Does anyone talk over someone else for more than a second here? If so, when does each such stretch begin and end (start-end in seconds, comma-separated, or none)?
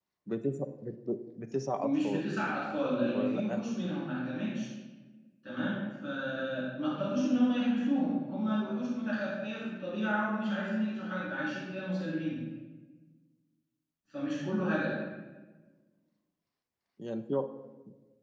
none